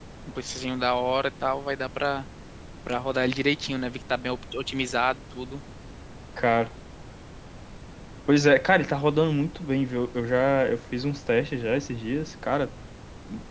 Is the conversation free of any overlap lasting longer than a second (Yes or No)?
Yes